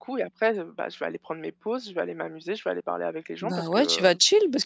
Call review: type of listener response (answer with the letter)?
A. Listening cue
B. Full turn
B